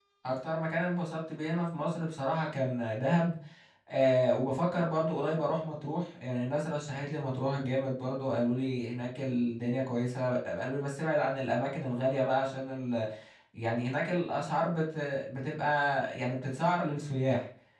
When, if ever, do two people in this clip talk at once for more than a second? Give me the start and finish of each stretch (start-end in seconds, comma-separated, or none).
none